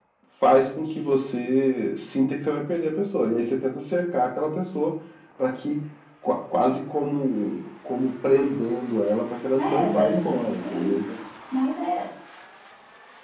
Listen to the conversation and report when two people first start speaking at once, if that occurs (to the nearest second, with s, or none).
10 s